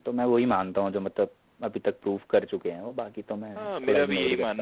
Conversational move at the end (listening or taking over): taking over